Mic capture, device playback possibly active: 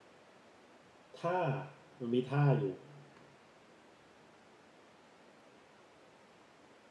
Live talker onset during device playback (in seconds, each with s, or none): 1.1 s